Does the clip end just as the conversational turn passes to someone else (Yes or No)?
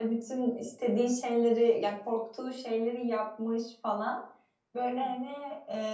No